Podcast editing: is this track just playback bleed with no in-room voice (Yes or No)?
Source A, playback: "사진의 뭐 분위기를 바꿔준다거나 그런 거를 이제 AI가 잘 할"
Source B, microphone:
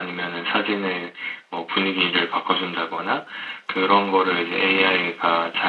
Yes